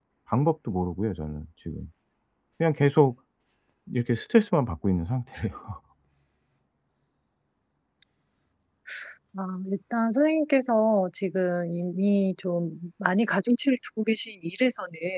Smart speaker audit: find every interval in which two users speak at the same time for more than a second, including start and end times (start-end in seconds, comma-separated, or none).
none